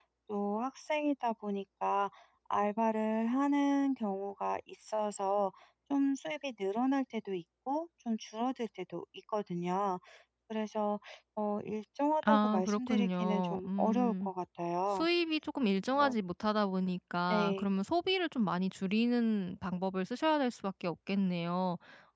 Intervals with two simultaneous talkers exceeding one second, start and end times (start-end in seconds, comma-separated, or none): 12.3-14.3